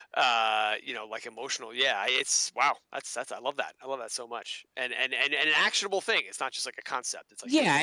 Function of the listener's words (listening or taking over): taking over